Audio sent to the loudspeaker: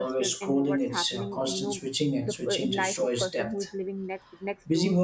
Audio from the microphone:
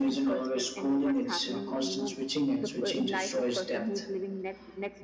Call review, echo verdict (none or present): present